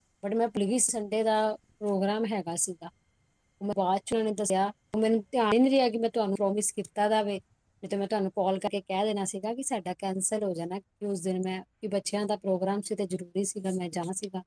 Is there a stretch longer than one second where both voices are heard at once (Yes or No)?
No